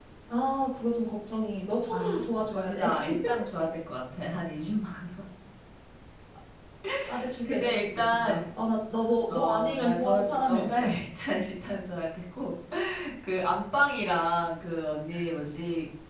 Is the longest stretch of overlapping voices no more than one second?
No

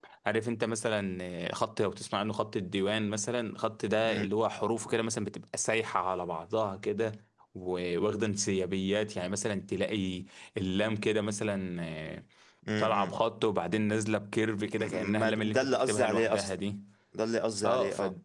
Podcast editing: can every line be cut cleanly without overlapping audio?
No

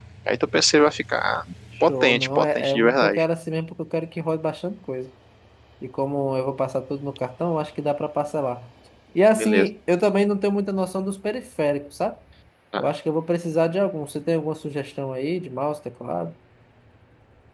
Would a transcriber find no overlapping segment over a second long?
No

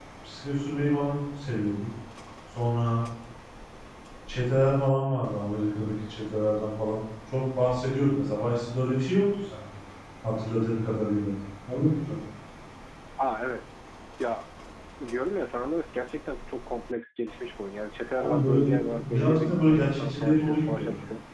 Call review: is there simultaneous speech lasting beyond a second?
Yes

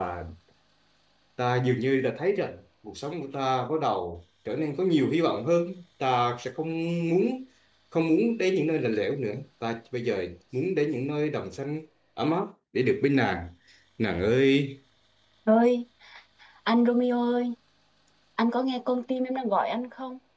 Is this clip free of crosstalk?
Yes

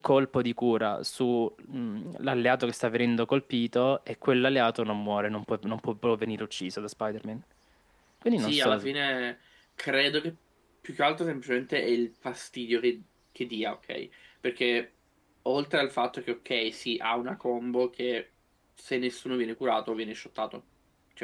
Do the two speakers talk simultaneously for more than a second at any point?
No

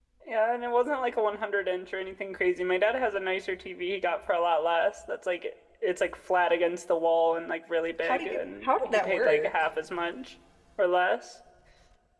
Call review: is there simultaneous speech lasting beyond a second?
Yes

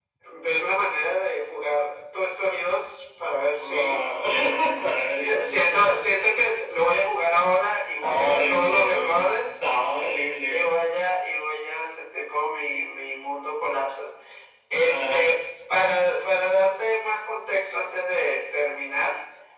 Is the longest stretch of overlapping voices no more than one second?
No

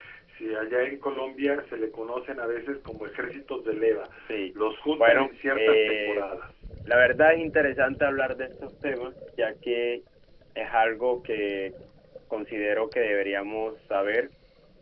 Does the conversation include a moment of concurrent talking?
Yes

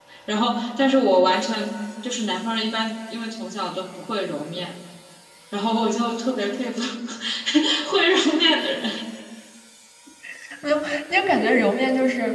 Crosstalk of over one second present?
No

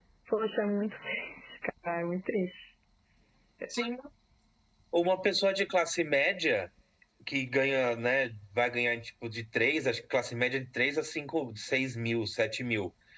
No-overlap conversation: Yes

